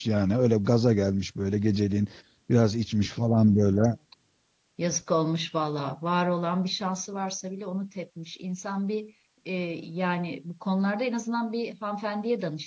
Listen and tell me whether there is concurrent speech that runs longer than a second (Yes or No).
No